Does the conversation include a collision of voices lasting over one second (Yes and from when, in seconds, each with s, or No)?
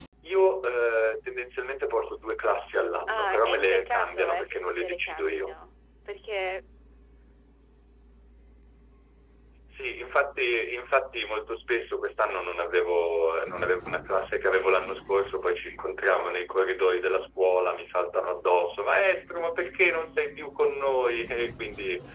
Yes, from 3.1 s